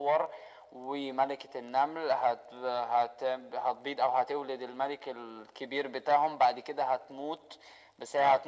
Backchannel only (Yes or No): Yes